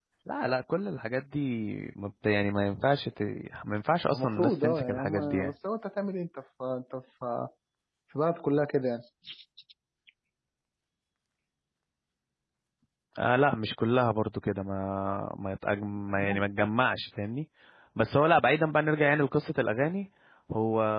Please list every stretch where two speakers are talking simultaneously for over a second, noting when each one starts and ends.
4.1-5.5

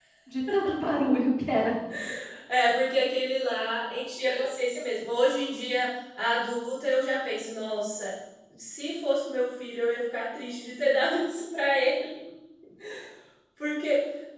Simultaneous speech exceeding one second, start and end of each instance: none

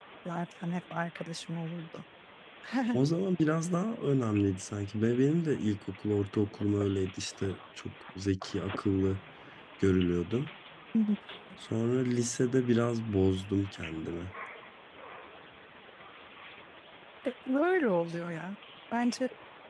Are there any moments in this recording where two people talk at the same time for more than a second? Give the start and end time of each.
none

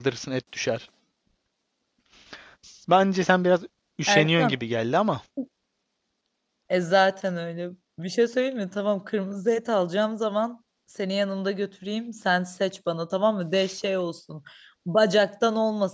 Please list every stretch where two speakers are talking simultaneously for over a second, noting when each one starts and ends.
none

